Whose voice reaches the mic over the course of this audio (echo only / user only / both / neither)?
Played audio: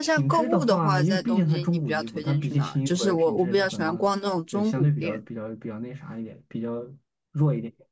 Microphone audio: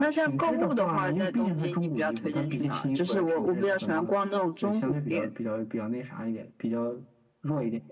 echo only